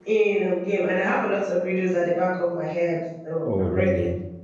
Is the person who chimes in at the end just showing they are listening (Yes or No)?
No